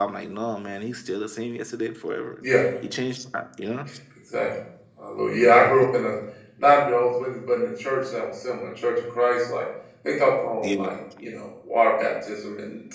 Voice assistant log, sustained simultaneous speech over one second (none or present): none